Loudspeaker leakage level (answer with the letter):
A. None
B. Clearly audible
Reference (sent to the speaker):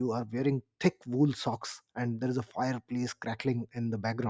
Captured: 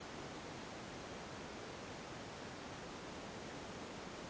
A